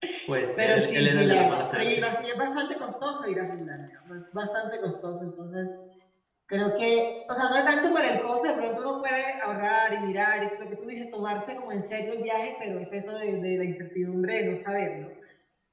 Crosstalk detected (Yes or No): Yes